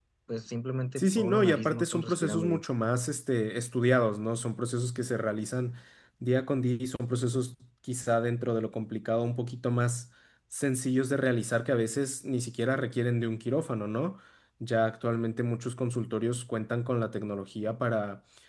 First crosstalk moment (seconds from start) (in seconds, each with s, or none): 1.0 s